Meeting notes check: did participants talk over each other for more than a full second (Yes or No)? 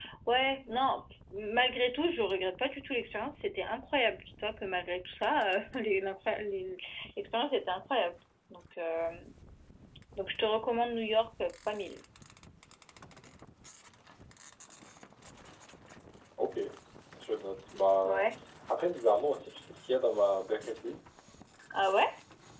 No